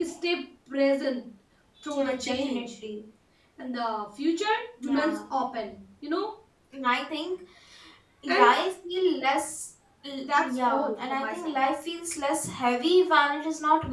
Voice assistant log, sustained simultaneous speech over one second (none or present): present